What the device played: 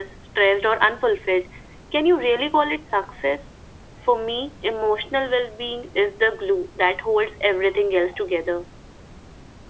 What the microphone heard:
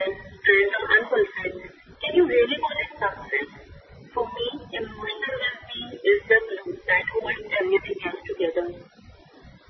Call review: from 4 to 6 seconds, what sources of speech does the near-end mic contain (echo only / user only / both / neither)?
echo only